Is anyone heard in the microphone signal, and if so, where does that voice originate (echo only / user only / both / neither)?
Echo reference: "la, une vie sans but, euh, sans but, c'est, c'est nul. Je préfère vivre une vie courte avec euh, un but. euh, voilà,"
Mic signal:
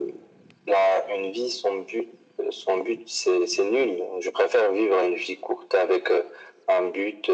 echo only